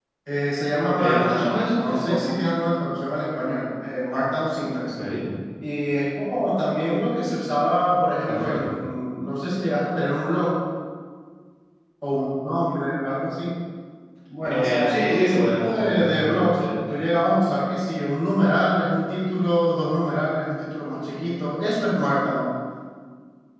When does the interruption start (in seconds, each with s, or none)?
0.8 s